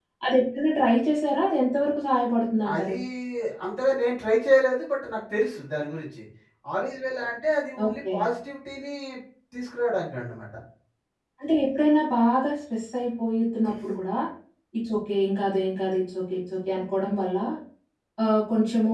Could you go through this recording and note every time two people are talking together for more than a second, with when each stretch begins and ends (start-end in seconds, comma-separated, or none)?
none